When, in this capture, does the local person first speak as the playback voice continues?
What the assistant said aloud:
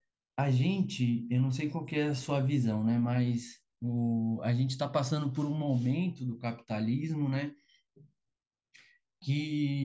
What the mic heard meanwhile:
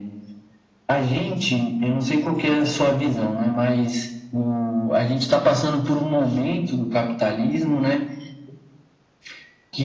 none

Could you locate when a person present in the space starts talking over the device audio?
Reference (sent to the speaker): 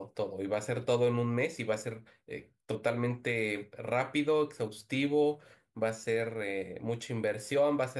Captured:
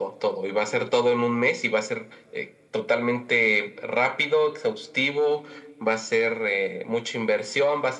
none

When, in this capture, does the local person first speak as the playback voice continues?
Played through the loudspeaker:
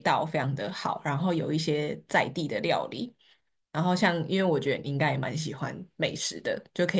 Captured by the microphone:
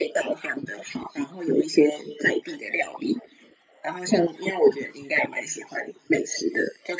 none

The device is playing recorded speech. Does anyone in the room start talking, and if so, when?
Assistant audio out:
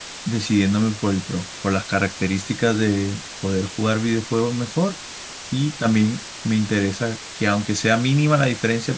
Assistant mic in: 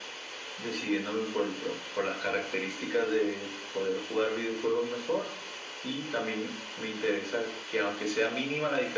none

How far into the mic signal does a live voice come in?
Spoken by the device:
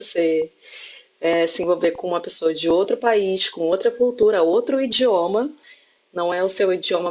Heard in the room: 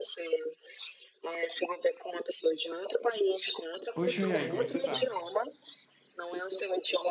3.9 s

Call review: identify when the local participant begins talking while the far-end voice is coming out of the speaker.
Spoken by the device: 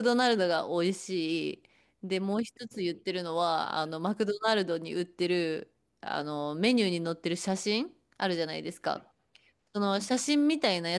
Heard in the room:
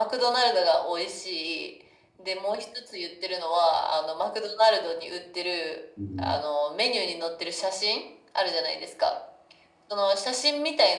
6.0 s

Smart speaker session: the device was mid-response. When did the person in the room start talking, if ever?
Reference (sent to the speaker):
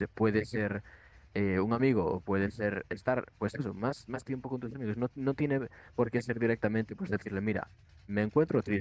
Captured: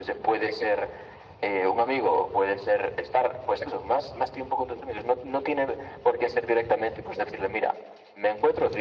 none

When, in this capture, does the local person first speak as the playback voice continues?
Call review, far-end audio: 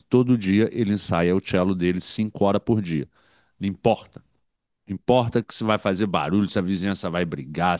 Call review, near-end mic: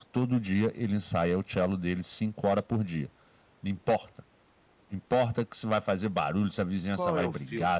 6.9 s

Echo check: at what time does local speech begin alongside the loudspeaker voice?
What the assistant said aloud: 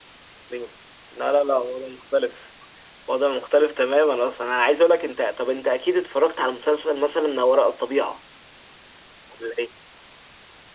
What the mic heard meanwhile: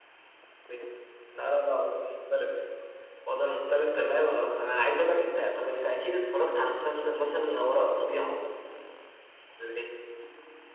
none

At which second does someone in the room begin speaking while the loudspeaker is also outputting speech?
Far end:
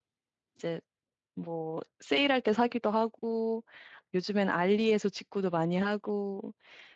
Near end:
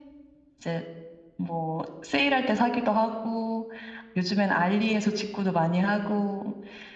none

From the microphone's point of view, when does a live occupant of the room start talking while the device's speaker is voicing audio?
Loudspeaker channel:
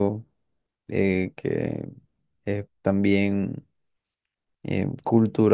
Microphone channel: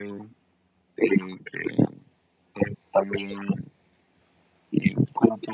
none

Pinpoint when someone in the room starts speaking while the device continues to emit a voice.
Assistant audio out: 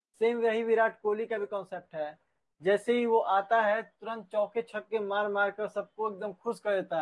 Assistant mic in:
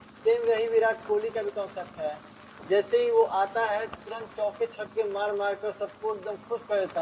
none

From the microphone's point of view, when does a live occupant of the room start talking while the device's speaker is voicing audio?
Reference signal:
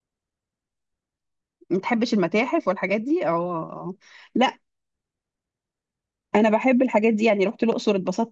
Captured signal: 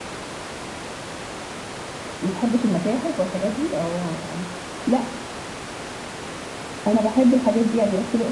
none

